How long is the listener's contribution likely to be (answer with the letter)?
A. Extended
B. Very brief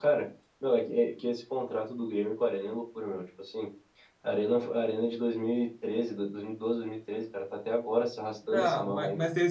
A